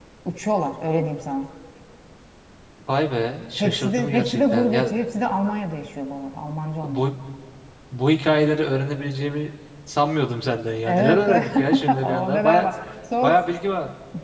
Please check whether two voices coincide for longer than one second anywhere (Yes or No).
Yes